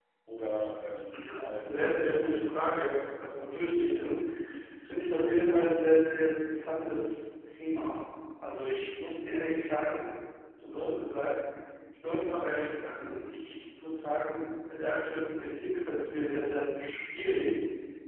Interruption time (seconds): 1.1 s

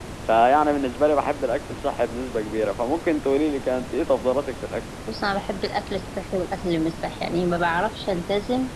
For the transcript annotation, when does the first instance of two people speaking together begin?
none

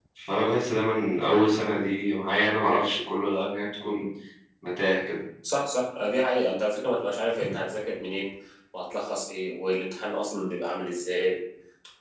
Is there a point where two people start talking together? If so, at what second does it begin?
none

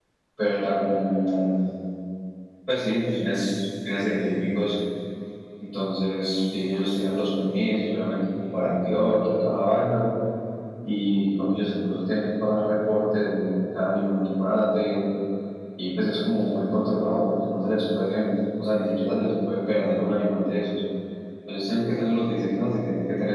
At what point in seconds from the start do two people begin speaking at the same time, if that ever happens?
none

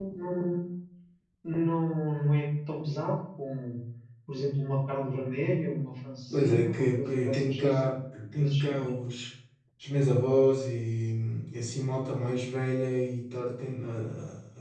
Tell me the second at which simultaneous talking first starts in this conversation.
6.3 s

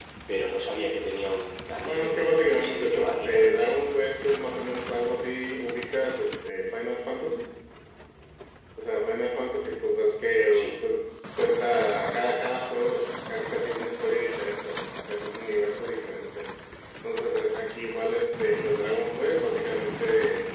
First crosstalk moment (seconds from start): 1.8 s

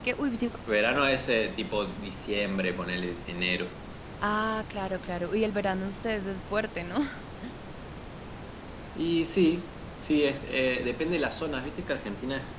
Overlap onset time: none

